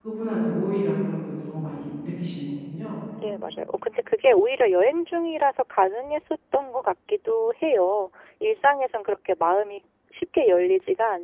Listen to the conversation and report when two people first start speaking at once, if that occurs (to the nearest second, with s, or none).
none